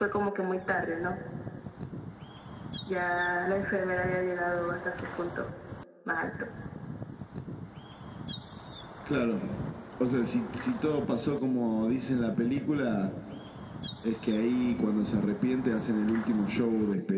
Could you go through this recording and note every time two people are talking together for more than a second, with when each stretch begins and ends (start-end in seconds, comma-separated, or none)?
none